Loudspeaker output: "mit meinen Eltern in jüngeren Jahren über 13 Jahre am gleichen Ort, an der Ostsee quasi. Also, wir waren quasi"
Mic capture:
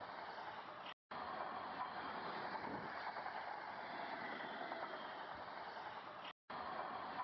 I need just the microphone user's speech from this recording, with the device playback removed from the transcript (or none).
none